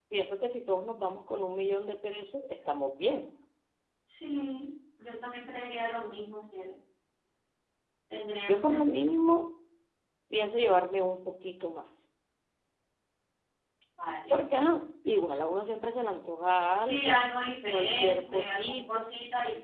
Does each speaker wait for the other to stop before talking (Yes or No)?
No